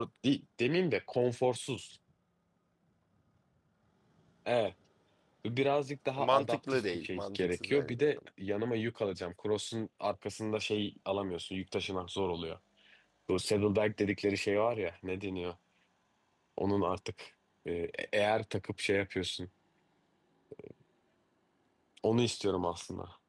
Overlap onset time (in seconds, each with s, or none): 6.2 s